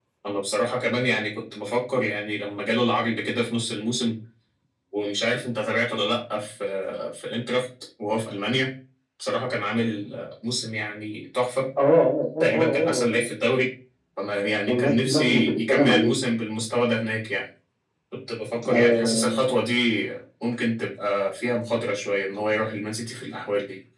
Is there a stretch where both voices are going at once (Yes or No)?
Yes